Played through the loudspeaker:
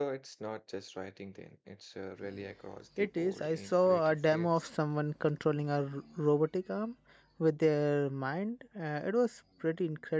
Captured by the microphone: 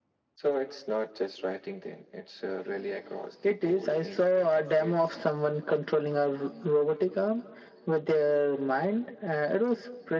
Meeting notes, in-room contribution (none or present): none